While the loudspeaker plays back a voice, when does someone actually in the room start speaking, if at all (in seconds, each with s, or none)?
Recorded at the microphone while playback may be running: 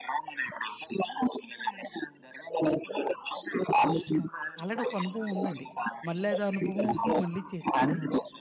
4.6 s